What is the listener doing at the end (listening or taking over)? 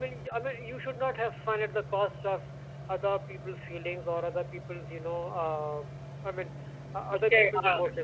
taking over